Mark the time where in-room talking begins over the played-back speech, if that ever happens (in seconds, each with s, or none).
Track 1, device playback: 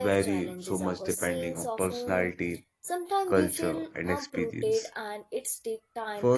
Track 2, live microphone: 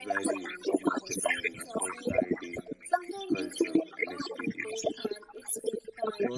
none